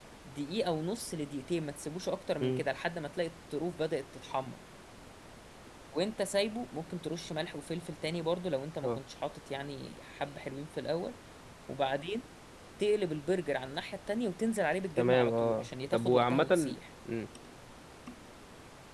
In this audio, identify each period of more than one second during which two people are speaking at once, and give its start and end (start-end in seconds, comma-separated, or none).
15.0-16.7